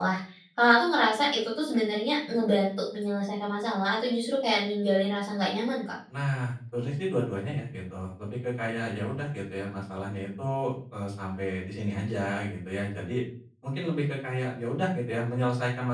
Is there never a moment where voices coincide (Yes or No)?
Yes